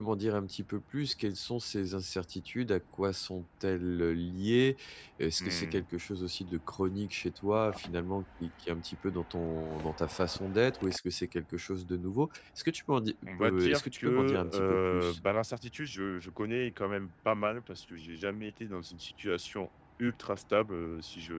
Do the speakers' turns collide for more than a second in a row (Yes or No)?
Yes